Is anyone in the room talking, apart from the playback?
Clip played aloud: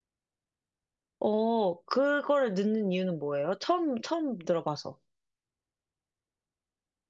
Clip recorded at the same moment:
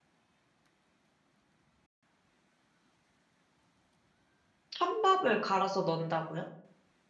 Yes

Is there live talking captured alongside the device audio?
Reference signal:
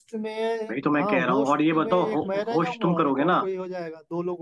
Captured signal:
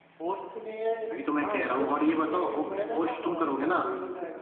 No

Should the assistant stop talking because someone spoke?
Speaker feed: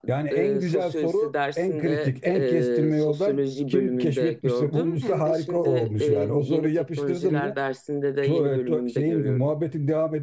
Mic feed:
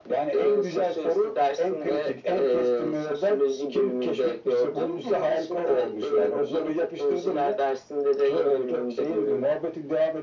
No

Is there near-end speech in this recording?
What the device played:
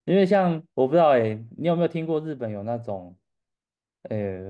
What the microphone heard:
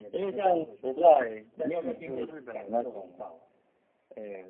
Yes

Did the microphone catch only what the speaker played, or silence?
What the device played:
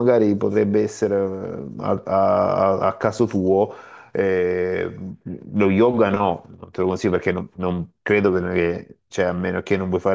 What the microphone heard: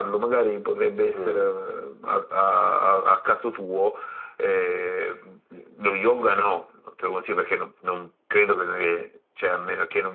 No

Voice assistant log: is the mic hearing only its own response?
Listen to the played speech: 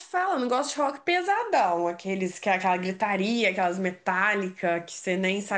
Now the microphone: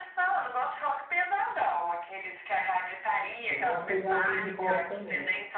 No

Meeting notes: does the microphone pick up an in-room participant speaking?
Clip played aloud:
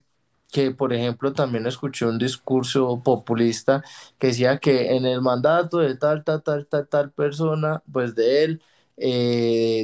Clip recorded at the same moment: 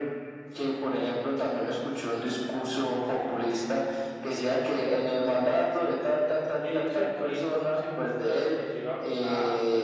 Yes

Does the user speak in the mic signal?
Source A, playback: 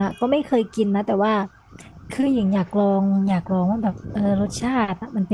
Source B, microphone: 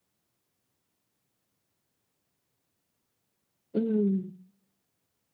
Yes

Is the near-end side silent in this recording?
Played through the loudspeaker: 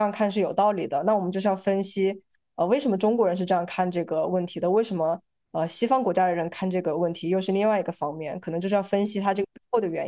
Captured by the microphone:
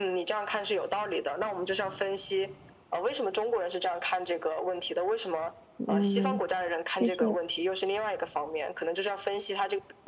No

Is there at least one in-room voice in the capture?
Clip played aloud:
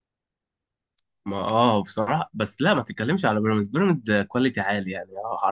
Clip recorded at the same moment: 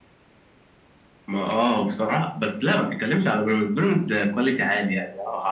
No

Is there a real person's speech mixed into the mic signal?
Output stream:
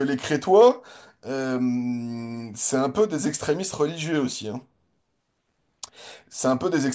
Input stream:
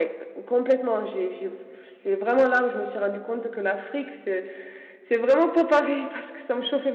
Yes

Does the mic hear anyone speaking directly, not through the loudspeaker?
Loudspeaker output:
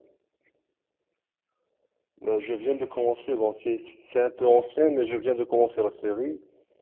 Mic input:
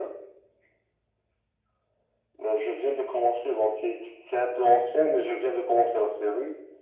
No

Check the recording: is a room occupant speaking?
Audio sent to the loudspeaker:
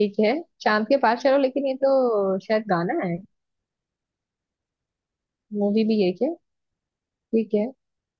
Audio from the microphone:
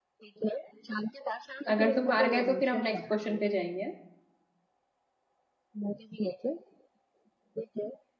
Yes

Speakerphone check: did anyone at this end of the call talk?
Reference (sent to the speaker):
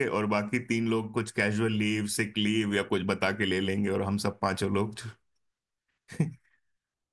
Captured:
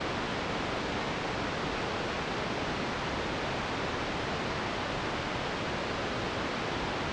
No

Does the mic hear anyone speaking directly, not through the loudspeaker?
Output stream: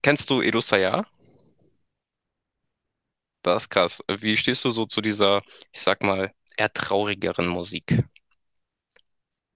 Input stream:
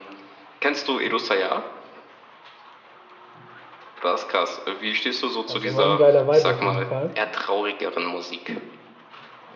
Yes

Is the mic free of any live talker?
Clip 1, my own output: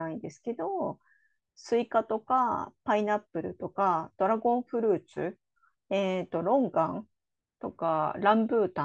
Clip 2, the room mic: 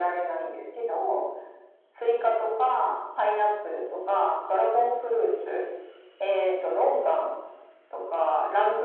Yes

